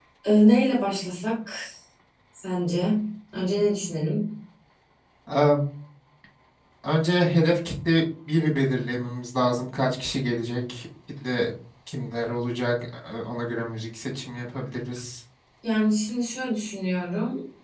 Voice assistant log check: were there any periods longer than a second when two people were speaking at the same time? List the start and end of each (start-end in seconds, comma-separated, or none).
none